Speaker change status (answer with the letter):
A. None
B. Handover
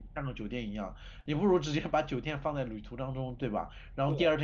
A